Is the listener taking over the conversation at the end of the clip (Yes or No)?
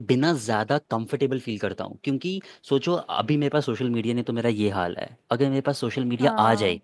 No